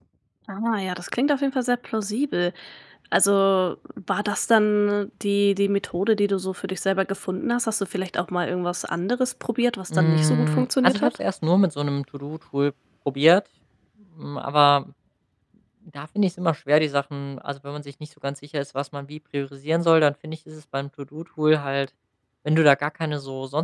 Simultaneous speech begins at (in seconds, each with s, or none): 9.9 s